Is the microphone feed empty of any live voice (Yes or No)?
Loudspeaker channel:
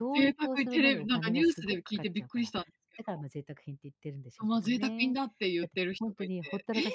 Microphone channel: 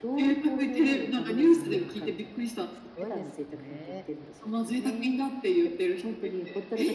No